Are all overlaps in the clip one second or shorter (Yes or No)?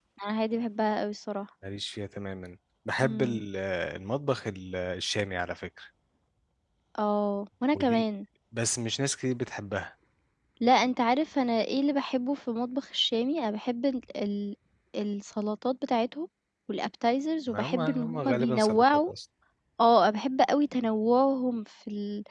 No